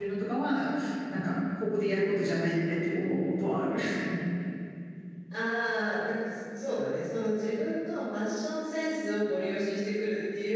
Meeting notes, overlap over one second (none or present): none